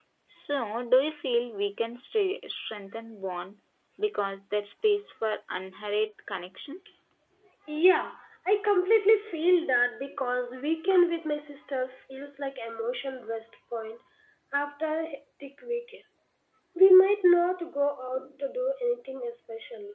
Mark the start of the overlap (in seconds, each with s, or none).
none